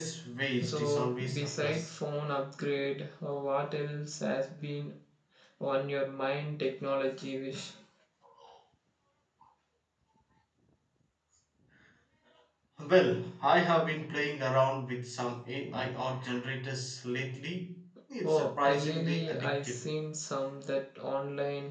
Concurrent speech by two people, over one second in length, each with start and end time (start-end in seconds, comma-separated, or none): 0.6-2.0, 18.2-19.9